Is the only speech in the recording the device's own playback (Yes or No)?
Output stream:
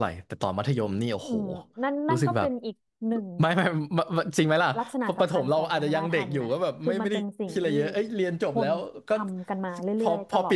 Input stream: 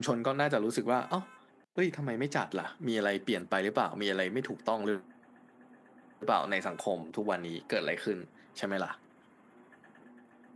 No